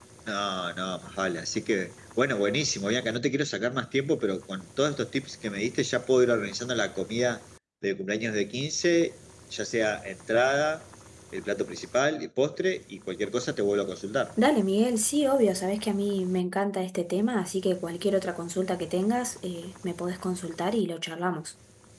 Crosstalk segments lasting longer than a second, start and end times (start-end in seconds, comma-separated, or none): none